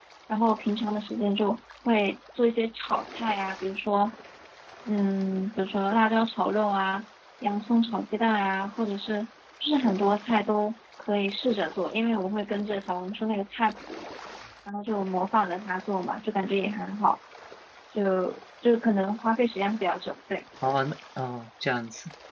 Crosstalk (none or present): none